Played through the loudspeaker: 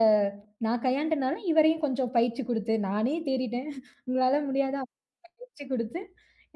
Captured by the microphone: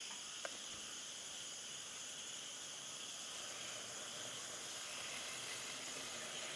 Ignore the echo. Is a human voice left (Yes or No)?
No